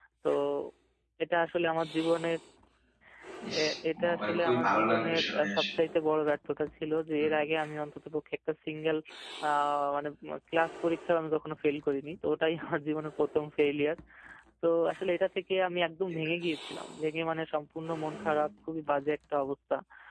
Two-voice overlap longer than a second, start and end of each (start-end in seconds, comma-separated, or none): 4.0-5.6